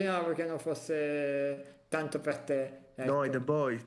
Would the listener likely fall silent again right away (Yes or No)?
No